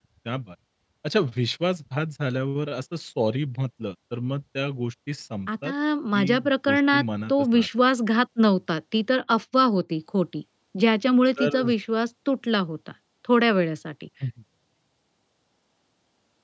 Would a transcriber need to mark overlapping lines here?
Yes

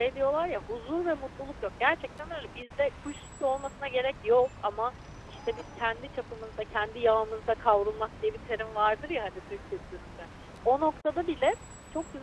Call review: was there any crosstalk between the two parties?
No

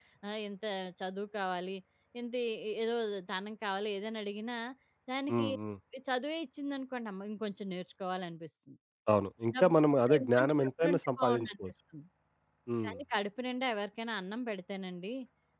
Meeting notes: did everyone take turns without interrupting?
No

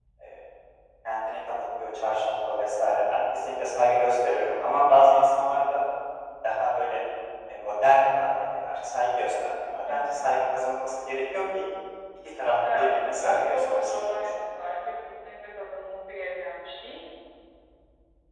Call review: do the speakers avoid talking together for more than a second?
No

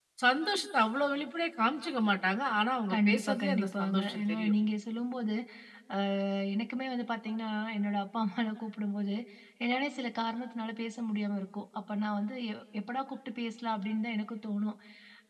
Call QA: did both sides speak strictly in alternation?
No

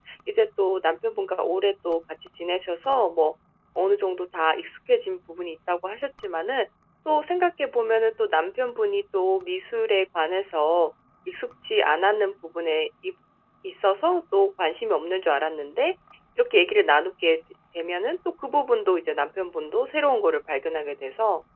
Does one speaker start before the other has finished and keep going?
No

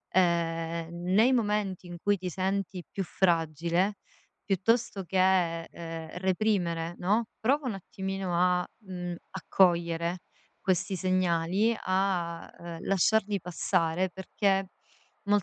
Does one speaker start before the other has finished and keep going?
No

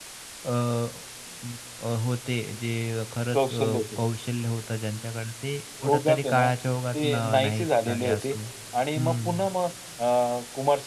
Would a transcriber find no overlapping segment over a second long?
No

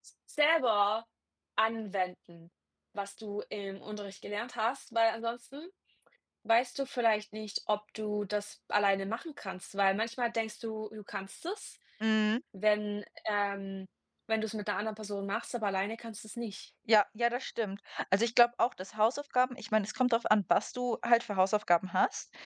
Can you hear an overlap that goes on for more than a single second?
No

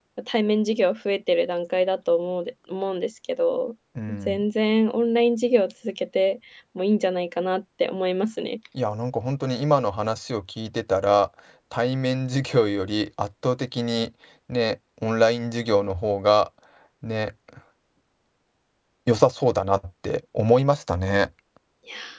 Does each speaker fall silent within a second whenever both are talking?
Yes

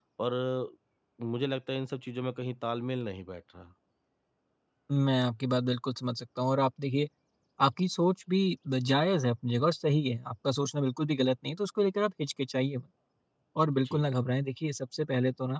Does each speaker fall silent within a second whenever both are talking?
Yes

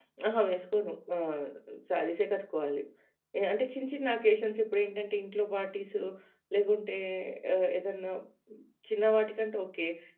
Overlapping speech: No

